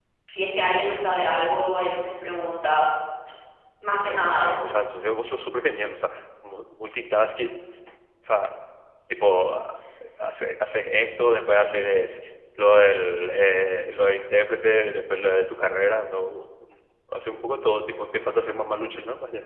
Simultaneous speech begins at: none

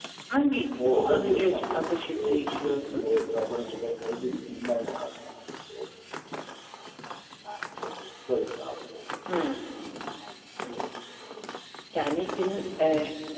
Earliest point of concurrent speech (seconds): 0.9 s

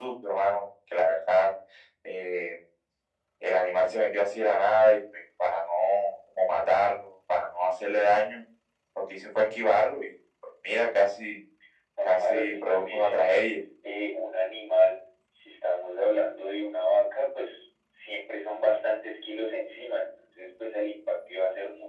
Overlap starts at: 12.1 s

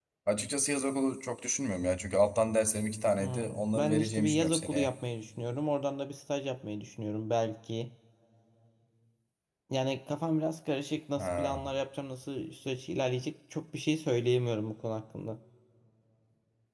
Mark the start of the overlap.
3.2 s

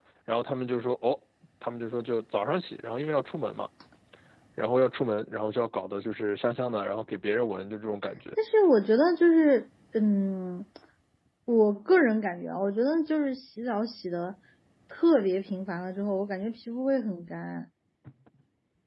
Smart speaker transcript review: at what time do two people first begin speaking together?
none

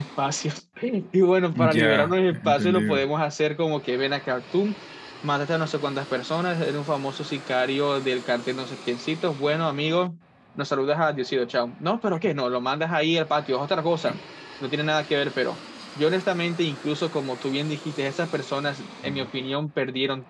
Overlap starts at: 1.5 s

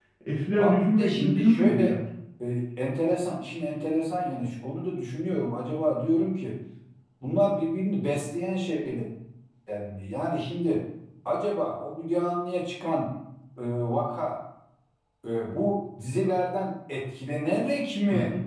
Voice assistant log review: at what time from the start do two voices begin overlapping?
0.6 s

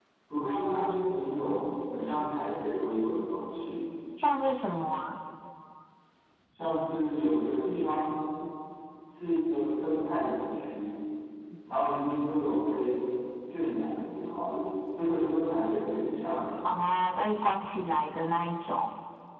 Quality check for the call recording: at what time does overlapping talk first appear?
none

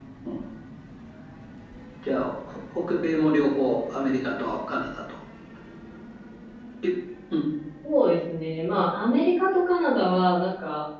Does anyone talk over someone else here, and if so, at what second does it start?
none

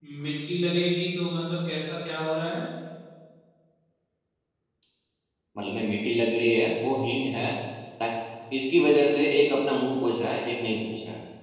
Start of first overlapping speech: none

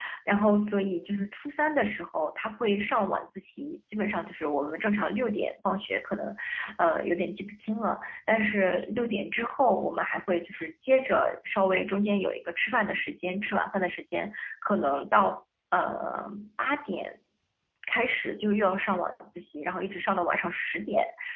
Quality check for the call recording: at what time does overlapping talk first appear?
none

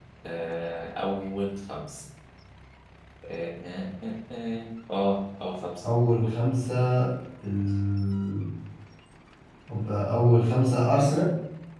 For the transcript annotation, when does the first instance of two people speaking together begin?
none

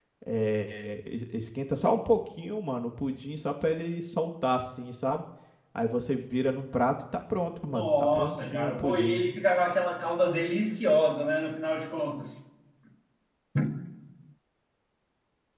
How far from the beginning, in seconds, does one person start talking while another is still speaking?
7.7 s

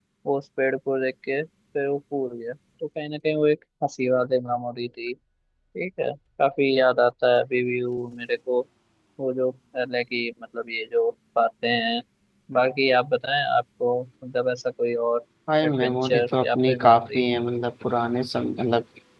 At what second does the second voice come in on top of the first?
15.6 s

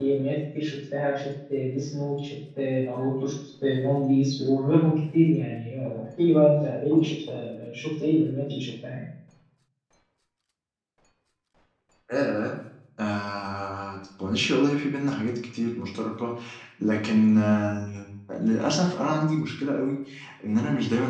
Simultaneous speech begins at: none

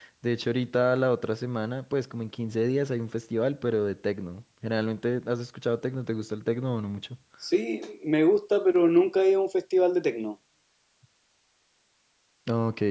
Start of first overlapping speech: none

